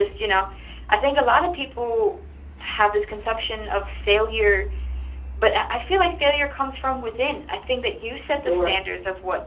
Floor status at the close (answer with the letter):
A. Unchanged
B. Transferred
A